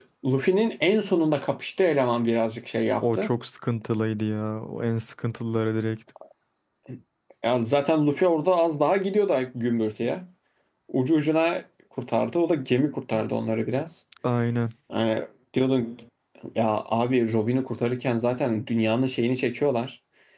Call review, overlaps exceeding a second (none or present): none